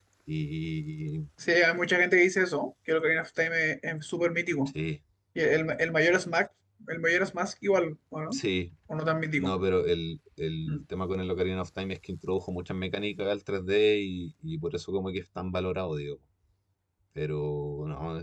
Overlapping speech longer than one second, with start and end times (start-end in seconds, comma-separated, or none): none